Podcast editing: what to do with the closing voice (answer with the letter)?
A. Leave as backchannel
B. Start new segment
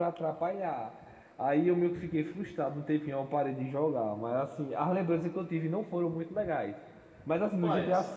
A